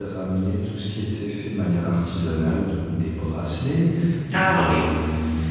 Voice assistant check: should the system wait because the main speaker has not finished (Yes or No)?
Yes